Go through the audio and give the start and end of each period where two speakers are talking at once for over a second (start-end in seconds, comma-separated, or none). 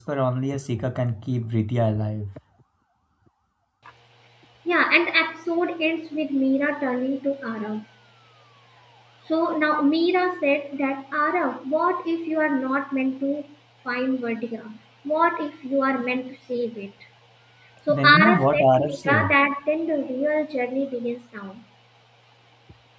17.9-19.4